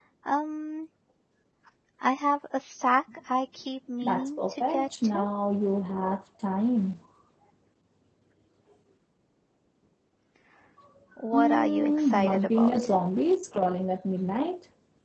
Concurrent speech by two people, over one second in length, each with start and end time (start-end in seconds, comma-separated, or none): 4.0-5.3, 11.3-12.9